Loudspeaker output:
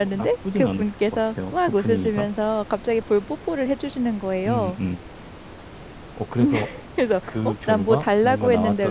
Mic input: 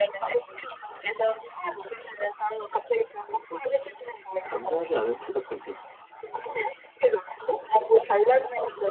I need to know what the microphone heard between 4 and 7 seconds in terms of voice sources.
both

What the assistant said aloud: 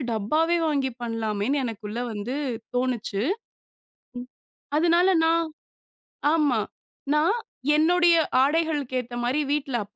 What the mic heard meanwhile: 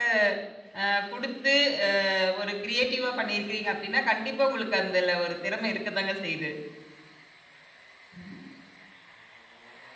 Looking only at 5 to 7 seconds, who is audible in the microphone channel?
user only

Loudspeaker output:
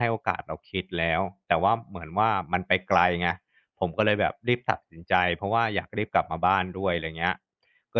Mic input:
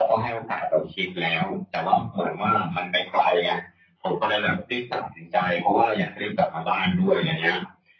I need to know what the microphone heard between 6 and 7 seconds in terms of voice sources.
echo only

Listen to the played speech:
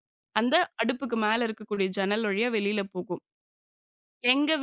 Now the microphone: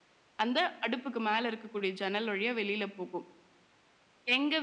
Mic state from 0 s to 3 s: echo only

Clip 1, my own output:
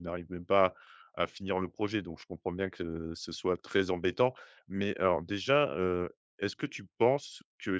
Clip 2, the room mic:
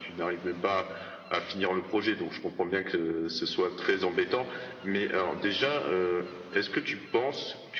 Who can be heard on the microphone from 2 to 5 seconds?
echo only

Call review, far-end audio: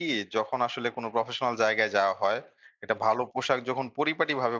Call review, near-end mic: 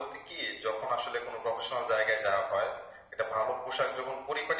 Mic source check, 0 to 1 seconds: echo only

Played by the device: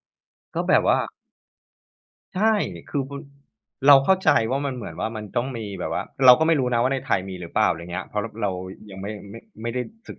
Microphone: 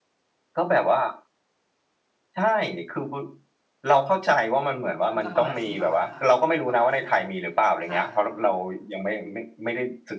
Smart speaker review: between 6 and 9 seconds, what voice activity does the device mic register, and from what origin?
both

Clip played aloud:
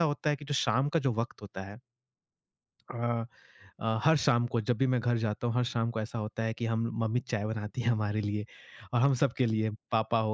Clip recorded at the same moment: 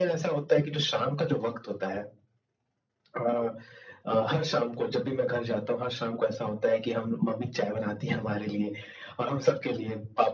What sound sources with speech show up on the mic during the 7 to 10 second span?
echo only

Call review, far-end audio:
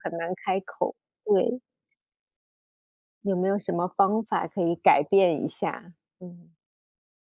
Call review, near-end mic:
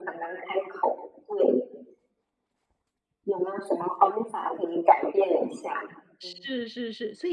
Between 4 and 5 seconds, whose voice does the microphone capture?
echo only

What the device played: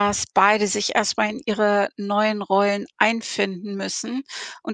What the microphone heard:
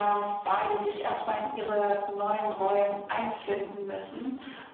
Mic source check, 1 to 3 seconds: echo only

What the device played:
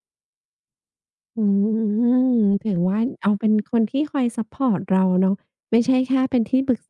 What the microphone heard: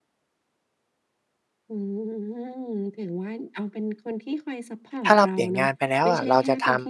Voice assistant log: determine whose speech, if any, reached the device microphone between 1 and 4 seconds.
echo only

